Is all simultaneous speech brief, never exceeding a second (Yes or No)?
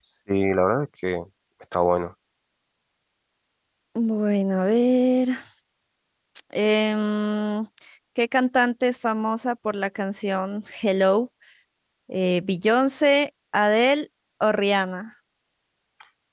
Yes